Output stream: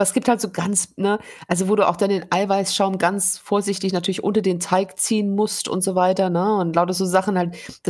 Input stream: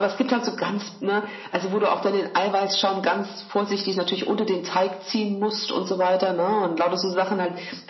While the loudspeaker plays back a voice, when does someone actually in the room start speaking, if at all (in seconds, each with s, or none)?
none